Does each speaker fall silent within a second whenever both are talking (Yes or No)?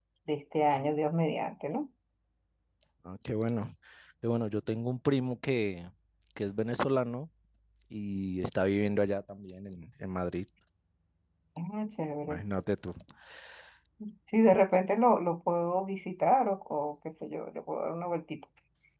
Yes